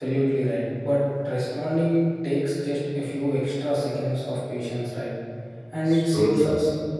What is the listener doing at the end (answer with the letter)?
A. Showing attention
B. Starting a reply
A